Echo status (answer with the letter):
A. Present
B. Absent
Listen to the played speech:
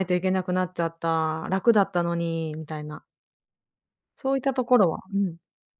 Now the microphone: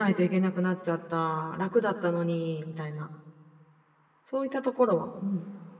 A